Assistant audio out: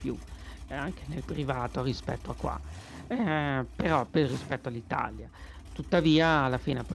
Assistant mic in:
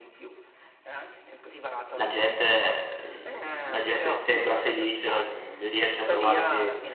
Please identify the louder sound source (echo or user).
user